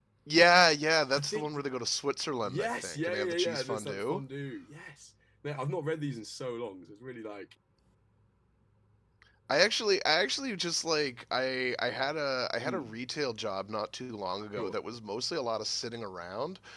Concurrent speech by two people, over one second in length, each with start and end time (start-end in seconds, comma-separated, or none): 2.4-4.2